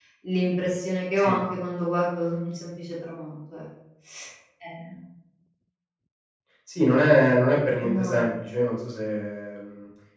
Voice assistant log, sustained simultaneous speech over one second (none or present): none